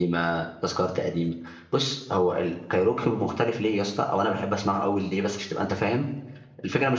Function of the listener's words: listening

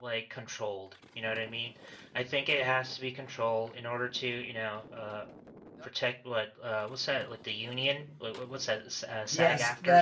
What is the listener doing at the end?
taking over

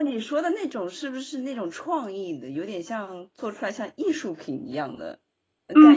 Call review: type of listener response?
taking over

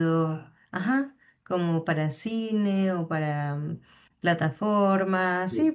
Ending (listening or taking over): taking over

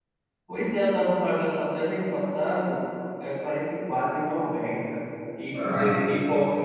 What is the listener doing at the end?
listening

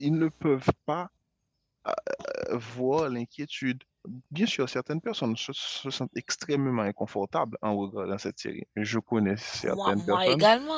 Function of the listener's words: taking over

